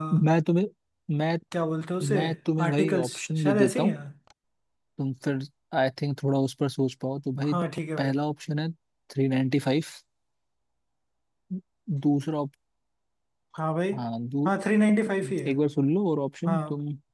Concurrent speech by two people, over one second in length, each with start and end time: 2.6-4.0

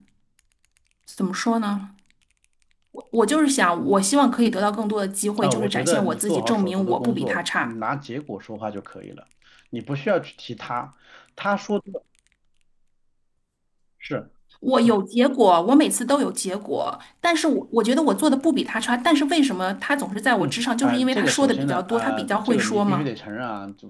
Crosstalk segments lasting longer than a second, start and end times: 5.4-7.7, 20.4-23.1

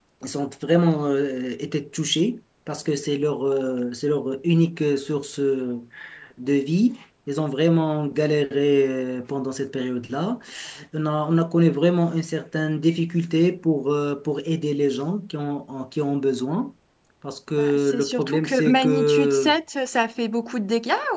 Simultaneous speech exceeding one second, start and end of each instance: 17.6-19.5

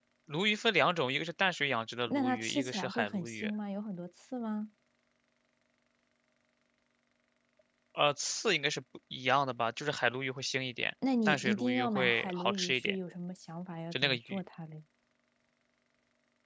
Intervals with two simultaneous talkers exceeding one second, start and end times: 2.1-3.5, 11.2-13.0

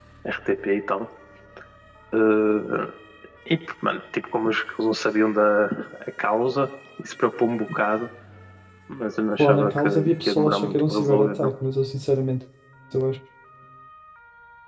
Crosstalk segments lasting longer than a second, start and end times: 9.4-11.5

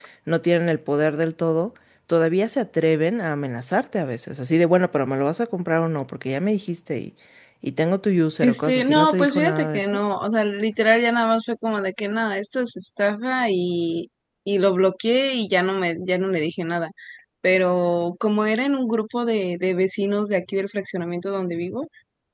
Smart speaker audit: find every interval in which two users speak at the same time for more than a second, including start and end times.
8.4-10.0

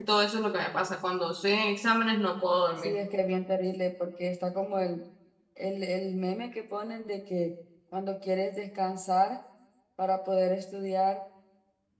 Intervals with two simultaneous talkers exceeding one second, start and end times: none

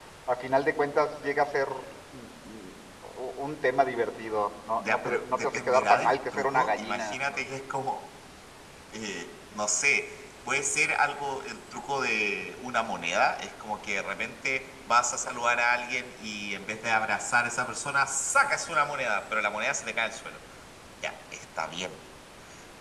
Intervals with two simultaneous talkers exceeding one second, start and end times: 4.8-7.4

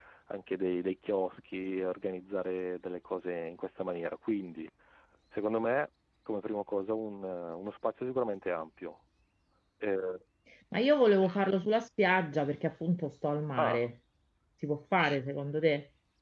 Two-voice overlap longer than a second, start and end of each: none

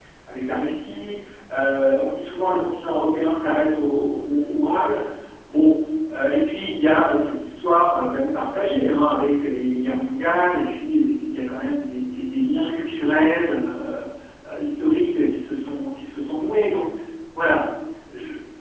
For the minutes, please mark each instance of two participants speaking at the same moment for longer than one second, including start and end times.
none

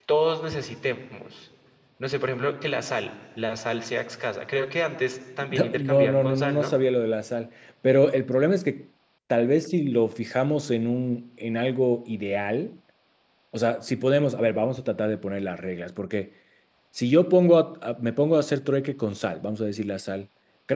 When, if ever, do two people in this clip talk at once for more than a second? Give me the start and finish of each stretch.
5.4-6.8

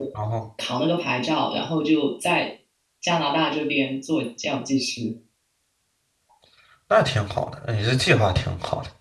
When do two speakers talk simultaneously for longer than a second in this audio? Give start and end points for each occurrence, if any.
none

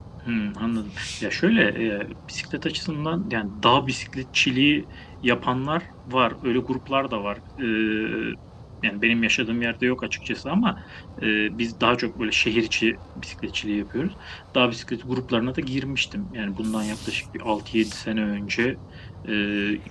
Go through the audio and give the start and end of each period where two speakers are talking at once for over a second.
none

